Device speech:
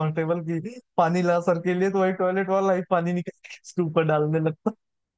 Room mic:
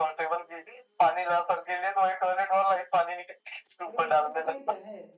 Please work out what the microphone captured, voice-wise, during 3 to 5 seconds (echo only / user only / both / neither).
both